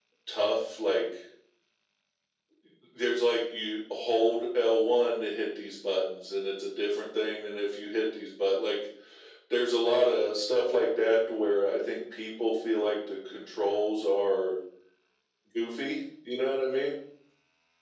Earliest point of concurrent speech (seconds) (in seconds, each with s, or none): none